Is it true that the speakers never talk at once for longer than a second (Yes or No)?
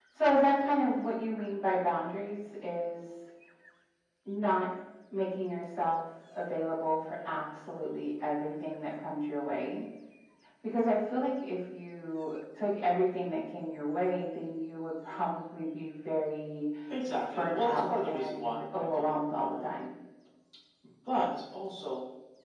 No